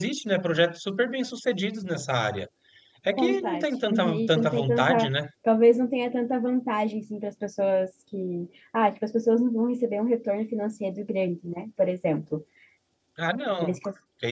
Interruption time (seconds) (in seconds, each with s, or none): 3.2 s